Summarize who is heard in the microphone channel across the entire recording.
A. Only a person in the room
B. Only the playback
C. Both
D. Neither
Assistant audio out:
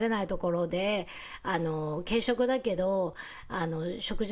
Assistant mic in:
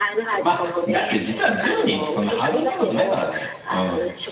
C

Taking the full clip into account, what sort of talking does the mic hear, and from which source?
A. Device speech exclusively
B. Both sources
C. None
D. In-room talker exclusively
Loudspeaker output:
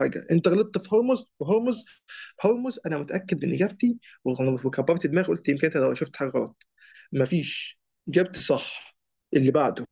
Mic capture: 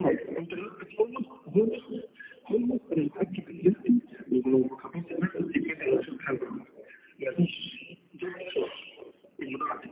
A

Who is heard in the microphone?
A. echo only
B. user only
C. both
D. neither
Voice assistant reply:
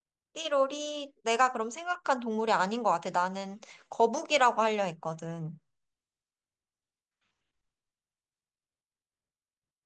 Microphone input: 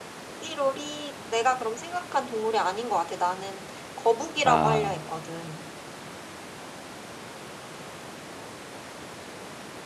C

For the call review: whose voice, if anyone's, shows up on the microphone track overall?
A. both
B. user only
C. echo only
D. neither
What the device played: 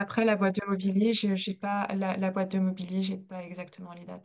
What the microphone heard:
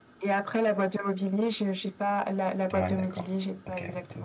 A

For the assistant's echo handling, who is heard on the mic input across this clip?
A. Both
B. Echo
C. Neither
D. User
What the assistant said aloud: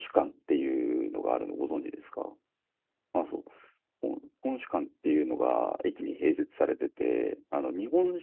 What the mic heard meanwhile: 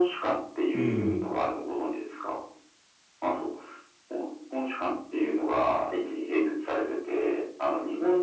A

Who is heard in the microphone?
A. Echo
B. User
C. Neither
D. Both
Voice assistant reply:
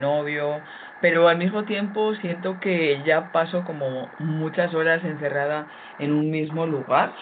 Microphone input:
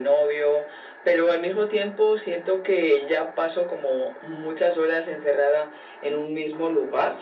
A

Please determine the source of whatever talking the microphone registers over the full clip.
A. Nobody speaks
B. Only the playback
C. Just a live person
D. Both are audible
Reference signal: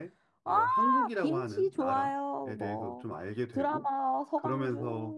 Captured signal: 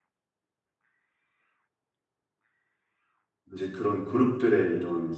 C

